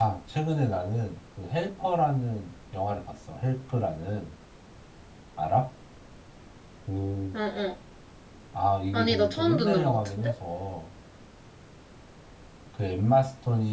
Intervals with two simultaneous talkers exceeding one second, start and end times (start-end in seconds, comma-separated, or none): 8.9-10.3